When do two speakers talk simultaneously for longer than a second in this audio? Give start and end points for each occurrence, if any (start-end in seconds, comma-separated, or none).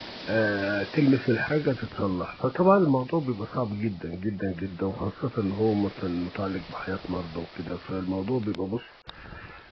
none